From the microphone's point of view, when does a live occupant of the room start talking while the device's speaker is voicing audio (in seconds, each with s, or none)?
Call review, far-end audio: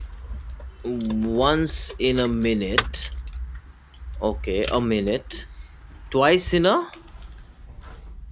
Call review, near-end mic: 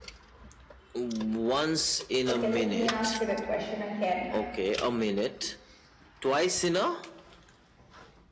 2.3 s